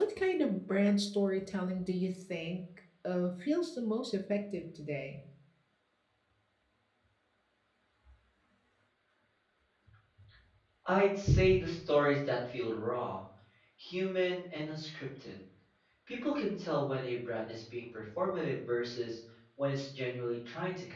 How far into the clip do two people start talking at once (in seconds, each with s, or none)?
none